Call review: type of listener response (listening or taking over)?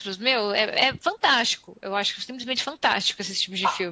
taking over